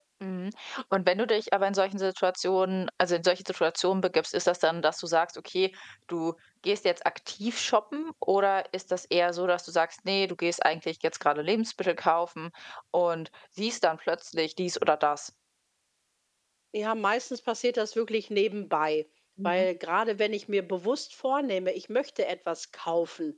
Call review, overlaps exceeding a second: none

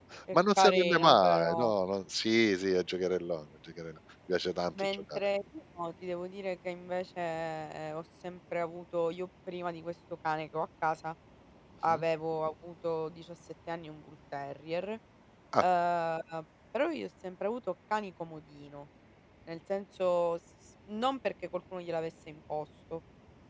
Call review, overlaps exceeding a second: present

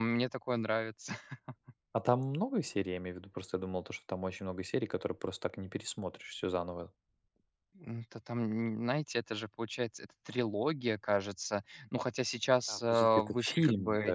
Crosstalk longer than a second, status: present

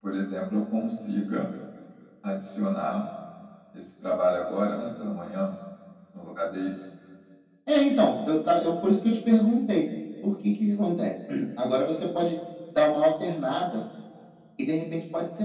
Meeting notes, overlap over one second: none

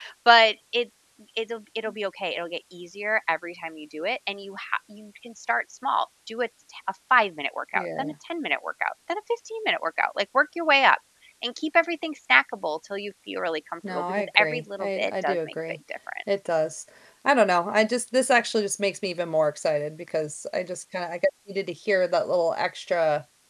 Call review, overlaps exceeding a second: present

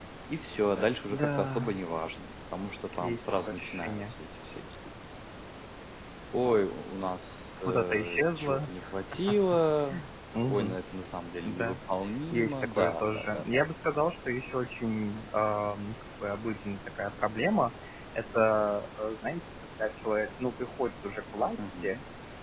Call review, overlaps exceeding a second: present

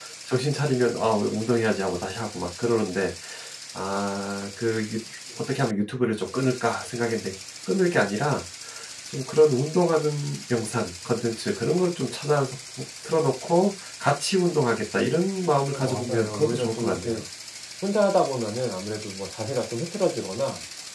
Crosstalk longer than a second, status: present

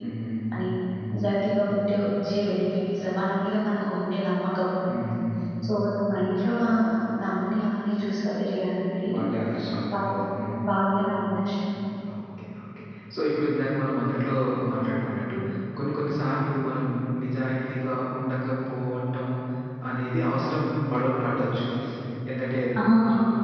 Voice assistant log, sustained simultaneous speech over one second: none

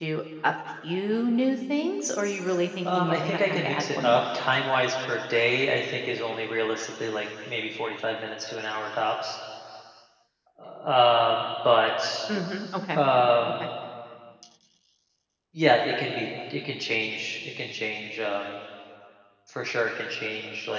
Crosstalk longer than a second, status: present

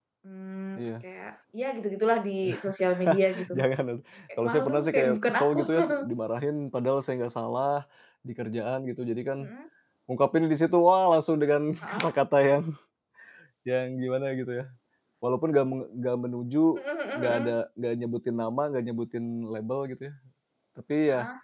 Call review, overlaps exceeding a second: present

